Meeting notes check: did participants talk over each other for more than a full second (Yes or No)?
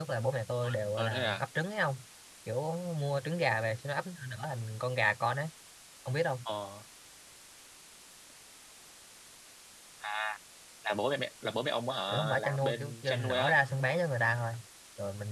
Yes